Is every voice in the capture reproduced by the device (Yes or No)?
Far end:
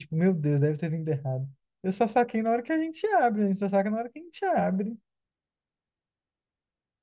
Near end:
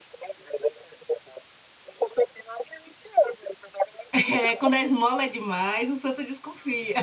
No